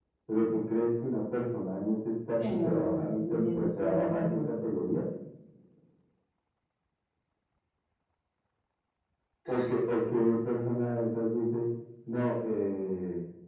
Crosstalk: present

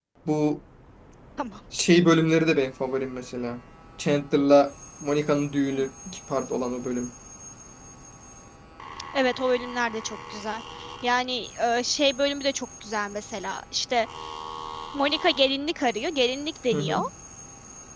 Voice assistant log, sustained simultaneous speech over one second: none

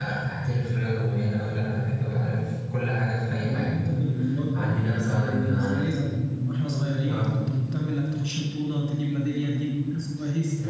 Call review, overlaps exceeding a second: present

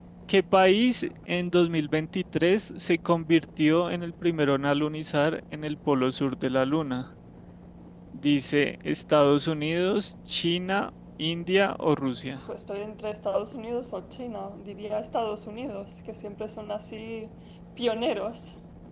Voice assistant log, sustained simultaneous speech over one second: none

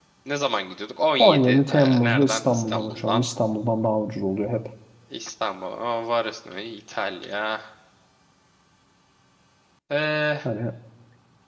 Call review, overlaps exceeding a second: present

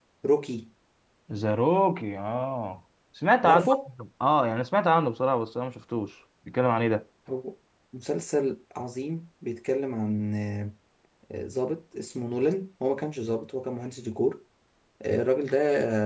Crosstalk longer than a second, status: none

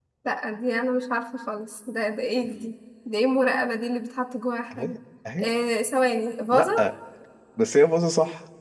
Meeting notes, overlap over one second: none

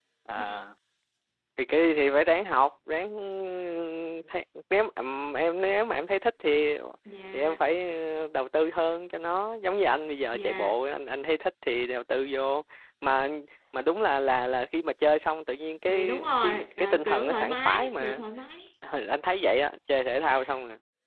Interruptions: present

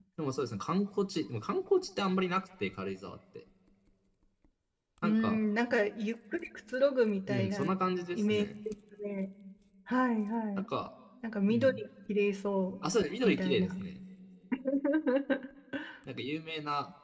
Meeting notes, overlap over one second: none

